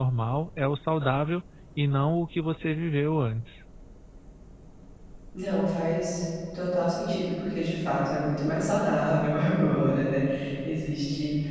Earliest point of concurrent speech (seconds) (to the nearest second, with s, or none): none